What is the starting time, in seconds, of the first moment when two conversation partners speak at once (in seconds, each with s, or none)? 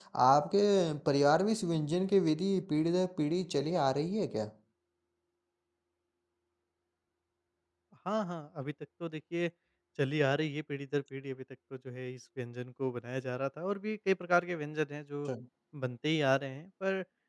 none